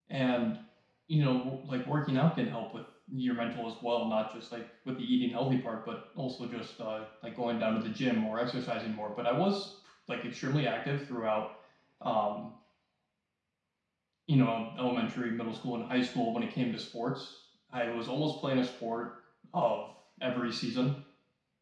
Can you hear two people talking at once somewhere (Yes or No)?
No